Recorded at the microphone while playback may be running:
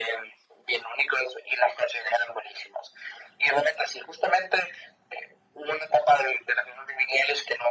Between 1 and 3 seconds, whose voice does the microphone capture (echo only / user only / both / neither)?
echo only